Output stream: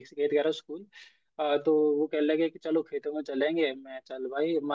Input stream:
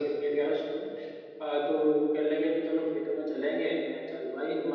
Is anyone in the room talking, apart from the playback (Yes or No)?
No